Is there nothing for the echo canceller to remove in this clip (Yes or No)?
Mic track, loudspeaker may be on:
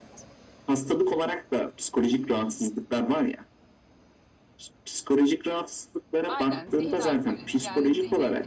No